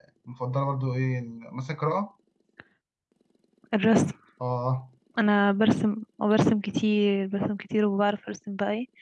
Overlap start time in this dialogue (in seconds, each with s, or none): none